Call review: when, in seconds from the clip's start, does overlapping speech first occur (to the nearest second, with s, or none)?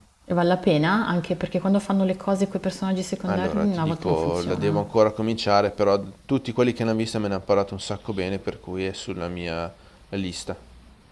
3 s